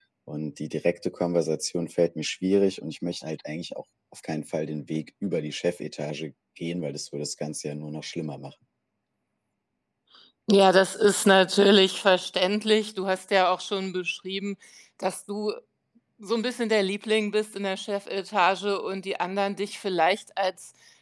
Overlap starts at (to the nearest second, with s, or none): none